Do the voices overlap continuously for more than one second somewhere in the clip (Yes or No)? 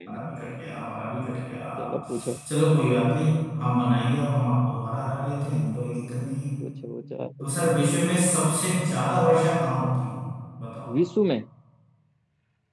No